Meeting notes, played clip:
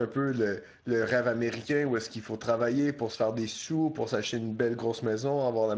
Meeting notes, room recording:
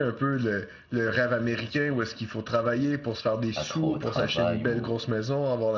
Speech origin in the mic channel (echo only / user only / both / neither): both